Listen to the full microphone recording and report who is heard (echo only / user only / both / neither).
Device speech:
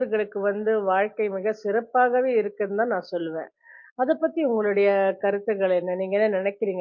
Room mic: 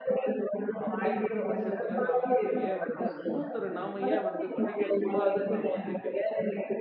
both